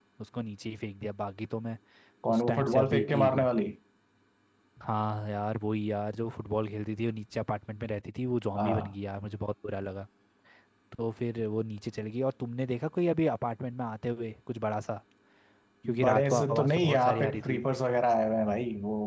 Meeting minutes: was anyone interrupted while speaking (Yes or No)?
Yes